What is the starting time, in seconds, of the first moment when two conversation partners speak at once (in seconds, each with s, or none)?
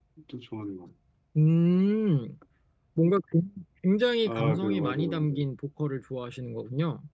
4.2 s